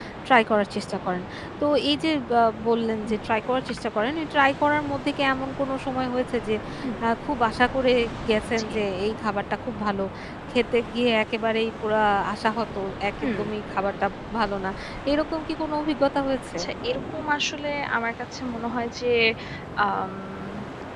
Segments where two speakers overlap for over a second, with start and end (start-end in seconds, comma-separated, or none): none